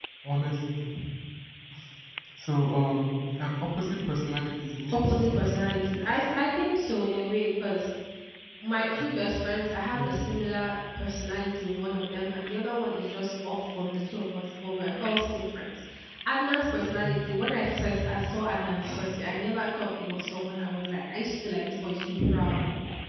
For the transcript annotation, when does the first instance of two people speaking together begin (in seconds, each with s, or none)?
4.9 s